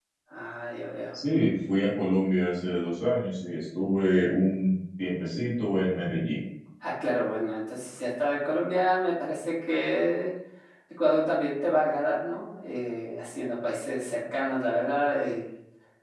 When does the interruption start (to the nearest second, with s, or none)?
none